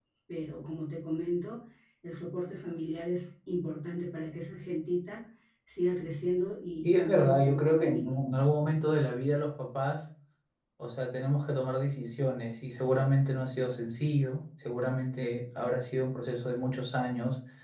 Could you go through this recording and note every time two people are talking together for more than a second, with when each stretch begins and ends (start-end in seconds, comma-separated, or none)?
6.8-8.2